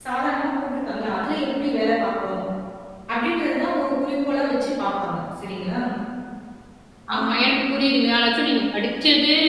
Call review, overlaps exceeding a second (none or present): none